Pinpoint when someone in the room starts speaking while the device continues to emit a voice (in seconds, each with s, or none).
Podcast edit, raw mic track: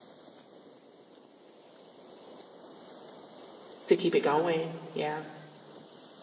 3.9 s